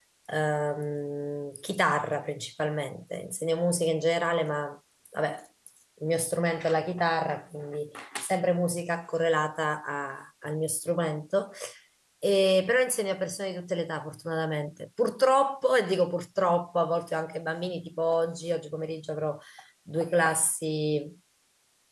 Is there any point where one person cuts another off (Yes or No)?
No